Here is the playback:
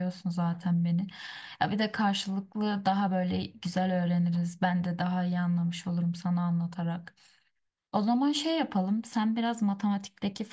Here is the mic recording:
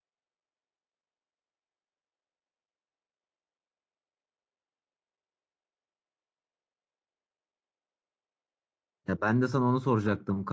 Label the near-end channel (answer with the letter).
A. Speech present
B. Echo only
A